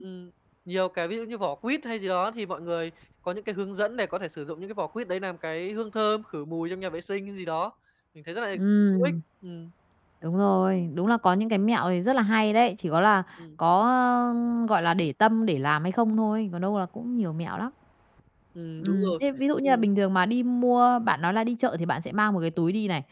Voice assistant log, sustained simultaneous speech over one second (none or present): none